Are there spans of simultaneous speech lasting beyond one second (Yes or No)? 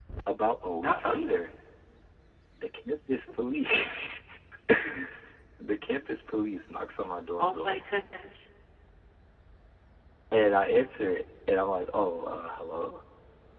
No